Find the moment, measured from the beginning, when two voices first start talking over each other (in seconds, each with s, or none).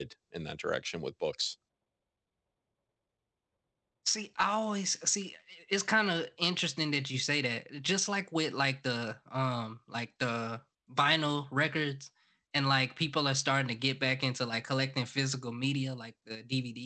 none